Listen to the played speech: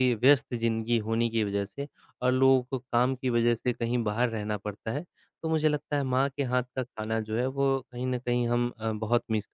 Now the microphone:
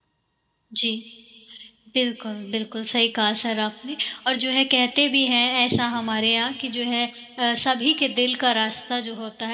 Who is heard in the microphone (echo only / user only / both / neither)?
user only